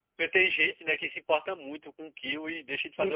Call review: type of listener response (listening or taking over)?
taking over